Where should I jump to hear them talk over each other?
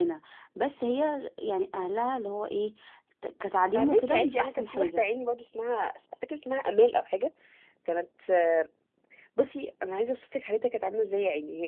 3.8 s

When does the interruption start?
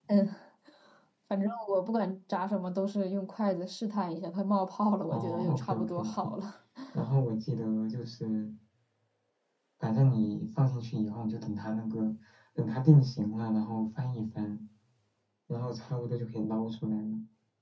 5.1 s

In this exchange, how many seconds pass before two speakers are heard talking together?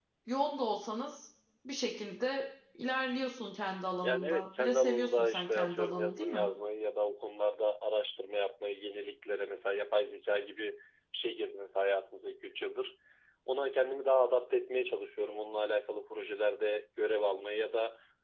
4.0 s

